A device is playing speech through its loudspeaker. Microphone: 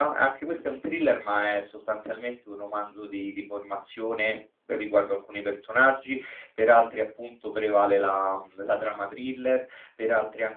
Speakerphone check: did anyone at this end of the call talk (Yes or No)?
Yes